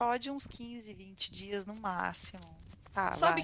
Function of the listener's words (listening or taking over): taking over